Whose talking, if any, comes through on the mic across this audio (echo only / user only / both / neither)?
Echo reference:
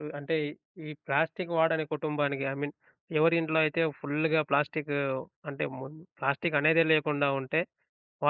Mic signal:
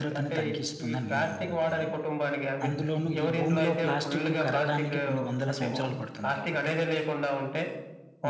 both